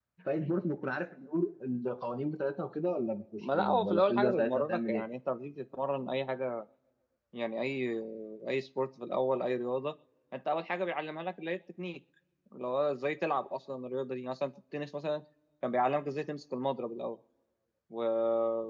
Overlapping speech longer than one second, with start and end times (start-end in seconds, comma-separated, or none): 3.4-5.0